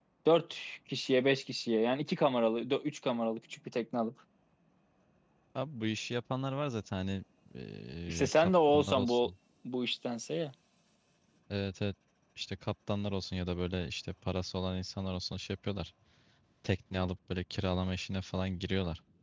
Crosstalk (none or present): present